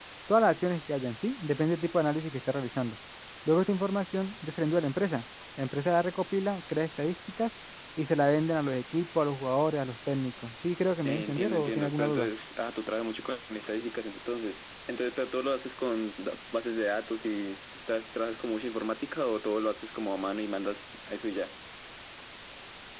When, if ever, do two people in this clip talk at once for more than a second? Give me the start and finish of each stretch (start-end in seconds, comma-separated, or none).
11.0-12.3